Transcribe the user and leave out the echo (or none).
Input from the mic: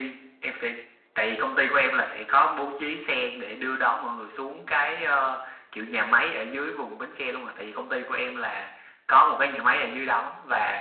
none